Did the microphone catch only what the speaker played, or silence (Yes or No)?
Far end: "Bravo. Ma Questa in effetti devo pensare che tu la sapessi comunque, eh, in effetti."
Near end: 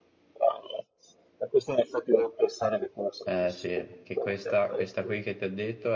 No